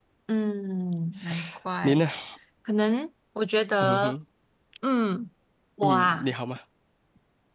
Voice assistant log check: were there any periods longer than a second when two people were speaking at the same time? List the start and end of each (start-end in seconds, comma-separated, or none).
none